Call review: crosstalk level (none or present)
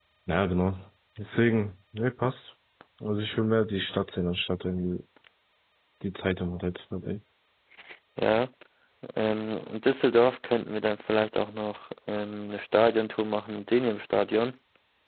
none